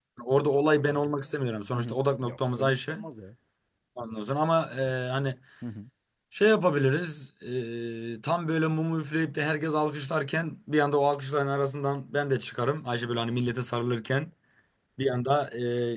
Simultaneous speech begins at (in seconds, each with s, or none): 1.7 s